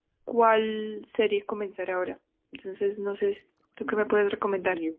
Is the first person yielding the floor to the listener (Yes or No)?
Yes